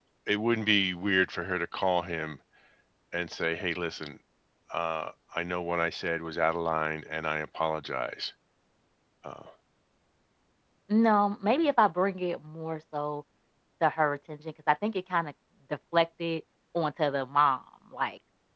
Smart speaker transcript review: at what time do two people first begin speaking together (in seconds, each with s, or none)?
none